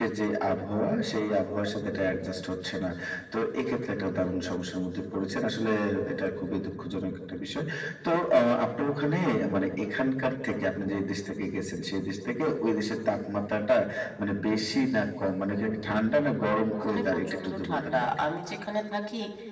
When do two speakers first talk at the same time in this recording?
17 s

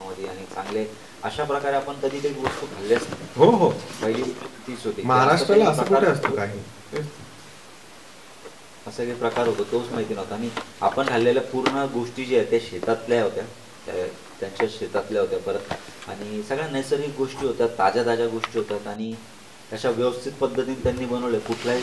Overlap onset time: 5 s

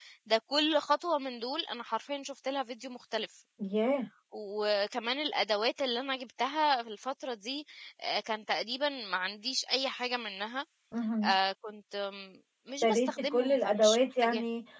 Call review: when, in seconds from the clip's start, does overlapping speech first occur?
13 s

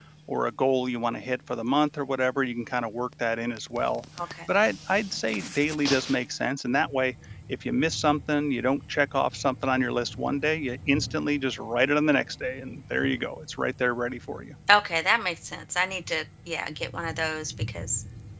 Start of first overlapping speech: none

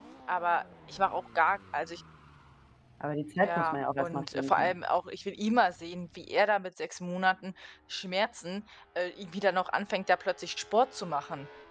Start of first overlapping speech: 3 s

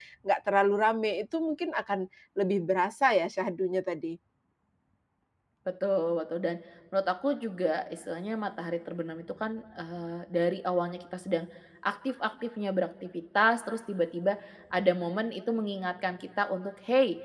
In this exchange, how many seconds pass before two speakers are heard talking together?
none

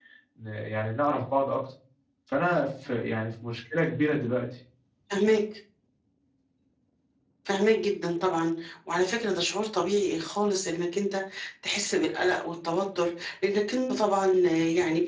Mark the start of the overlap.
none

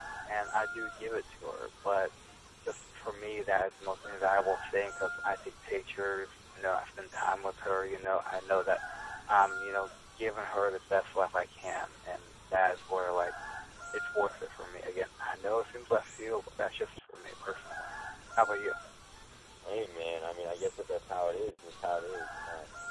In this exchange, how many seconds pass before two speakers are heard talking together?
none

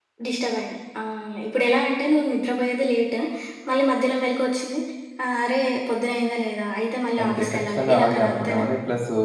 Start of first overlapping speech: 7 s

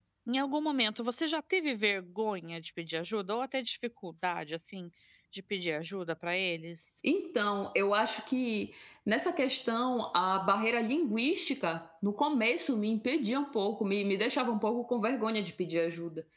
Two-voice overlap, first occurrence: none

